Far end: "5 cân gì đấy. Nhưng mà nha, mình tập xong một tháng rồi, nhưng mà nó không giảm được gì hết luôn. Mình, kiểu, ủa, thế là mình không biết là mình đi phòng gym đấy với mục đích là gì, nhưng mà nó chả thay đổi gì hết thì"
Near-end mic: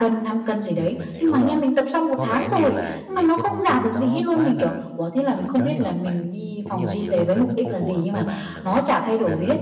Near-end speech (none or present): present